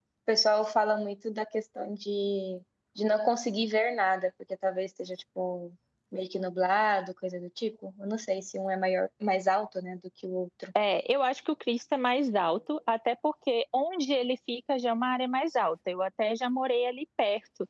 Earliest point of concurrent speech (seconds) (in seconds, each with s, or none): none